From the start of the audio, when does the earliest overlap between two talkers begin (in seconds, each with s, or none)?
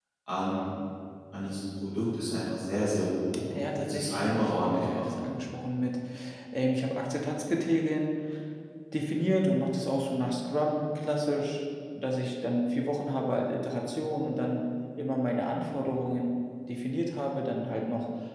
3.5 s